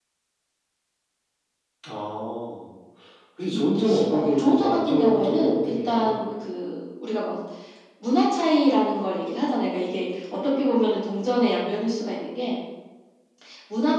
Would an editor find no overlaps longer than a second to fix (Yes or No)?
No